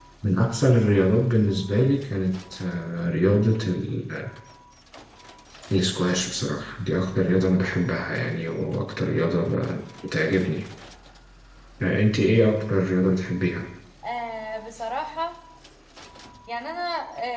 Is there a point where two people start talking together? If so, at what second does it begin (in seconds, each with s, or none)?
none